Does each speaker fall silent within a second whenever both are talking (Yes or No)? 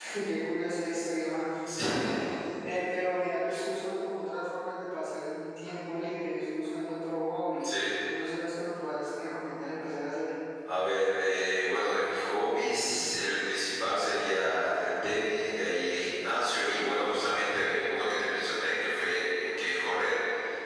Yes